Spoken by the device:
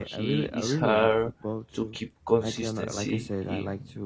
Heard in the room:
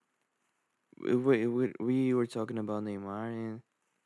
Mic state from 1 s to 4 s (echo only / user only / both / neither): user only